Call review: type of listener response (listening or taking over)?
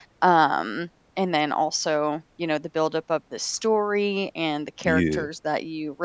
listening